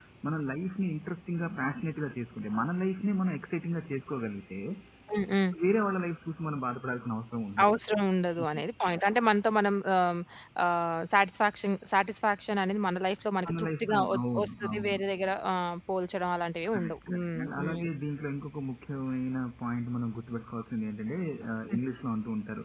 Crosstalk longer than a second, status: present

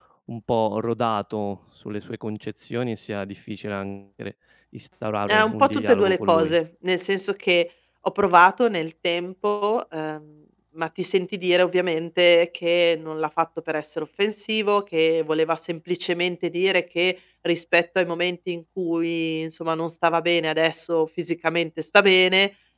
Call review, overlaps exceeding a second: present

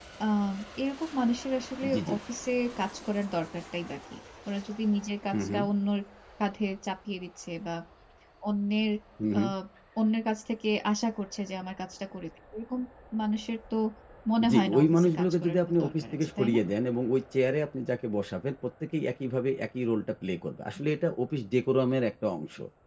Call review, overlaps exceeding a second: present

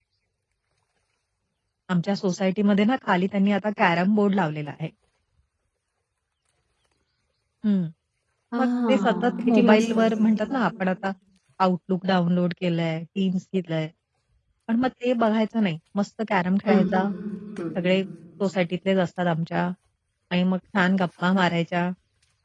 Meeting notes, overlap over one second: present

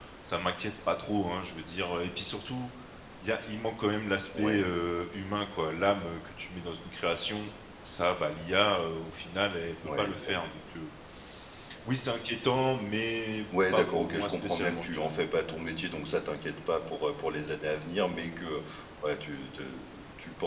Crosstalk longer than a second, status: present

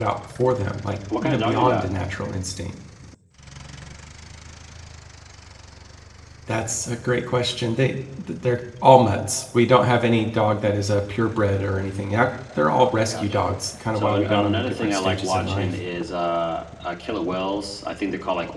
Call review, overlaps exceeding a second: present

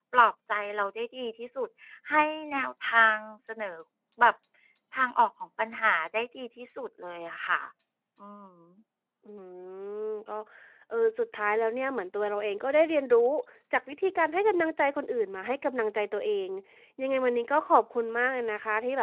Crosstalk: none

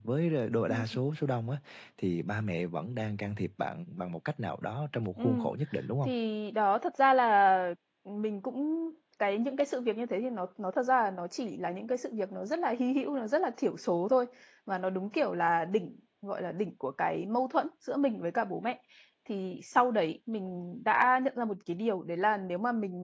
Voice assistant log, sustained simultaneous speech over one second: none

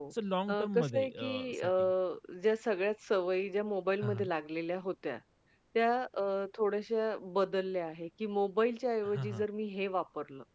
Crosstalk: present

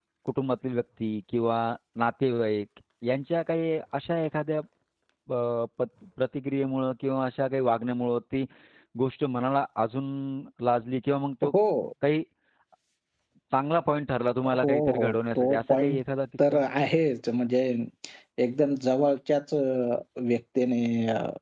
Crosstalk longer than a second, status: present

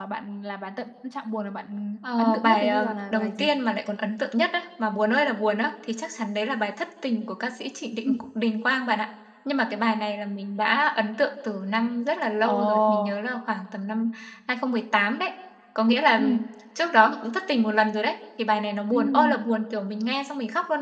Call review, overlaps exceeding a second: present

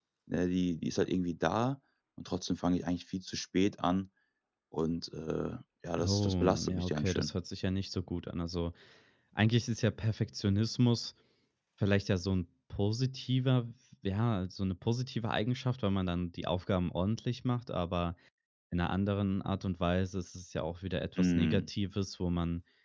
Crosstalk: present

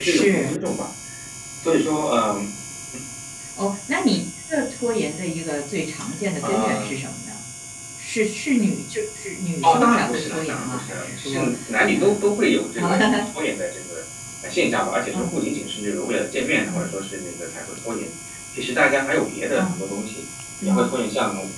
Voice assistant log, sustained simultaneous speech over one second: present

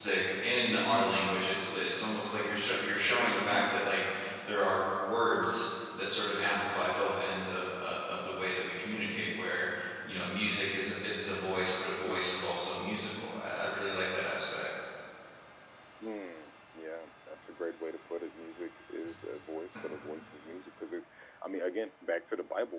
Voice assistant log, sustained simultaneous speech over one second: none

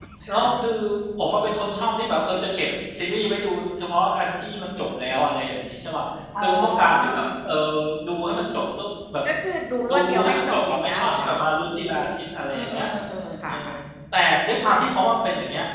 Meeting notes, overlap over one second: present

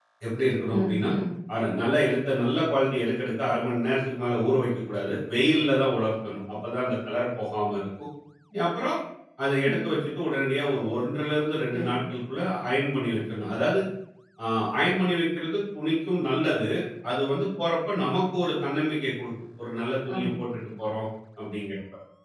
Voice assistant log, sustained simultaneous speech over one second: none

